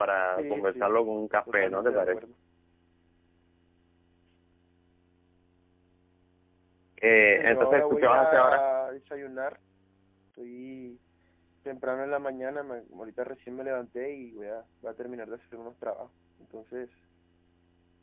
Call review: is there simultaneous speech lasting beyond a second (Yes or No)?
Yes